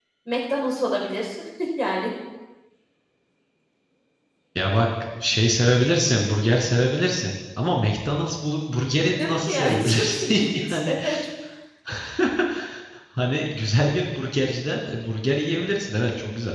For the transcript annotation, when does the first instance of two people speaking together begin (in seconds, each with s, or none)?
9.0 s